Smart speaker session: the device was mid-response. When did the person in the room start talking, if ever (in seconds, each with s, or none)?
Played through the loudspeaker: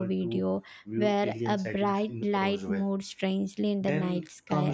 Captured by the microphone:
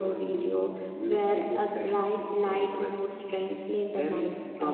none